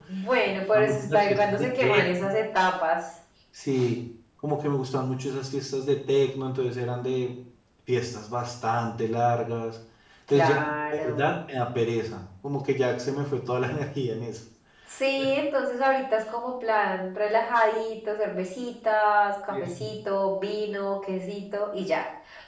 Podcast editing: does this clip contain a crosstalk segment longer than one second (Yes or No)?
Yes